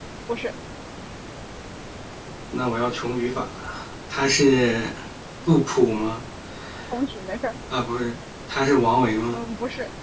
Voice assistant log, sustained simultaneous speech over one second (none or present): none